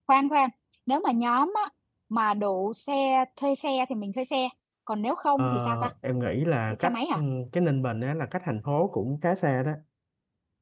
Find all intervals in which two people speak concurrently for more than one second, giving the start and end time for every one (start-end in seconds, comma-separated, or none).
none